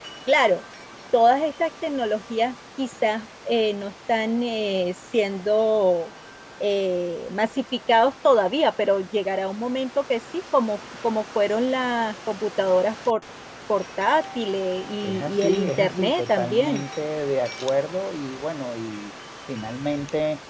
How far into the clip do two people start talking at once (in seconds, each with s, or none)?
15.0 s